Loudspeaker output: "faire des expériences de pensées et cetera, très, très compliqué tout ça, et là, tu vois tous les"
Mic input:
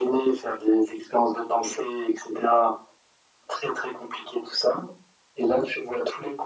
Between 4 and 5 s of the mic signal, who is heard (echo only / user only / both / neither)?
echo only